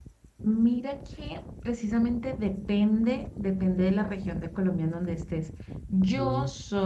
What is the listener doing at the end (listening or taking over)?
listening